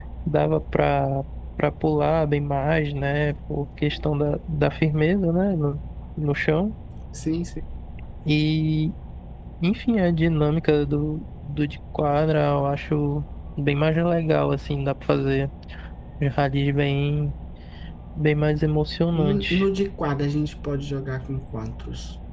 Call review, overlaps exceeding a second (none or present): none